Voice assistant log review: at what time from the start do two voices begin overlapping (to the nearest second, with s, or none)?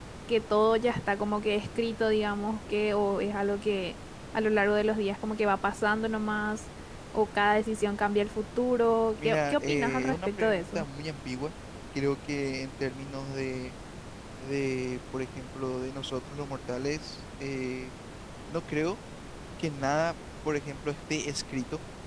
9 s